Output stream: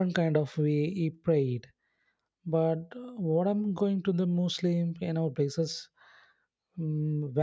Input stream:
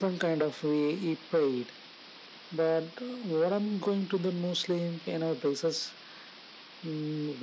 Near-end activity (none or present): none